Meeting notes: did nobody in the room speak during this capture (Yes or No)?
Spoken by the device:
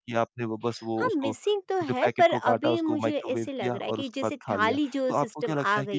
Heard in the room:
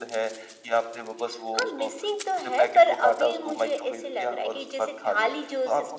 Yes